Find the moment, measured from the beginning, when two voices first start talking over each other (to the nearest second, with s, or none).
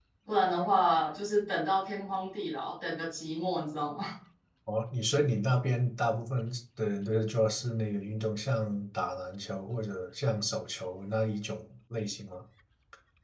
none